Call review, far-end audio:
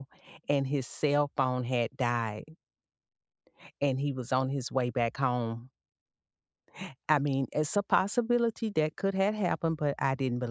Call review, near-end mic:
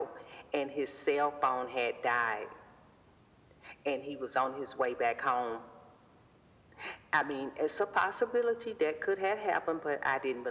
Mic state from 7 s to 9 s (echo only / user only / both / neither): echo only